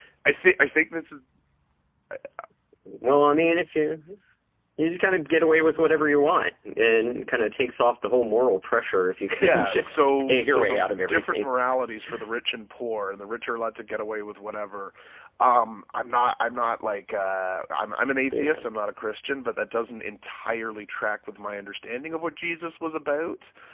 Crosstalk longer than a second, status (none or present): present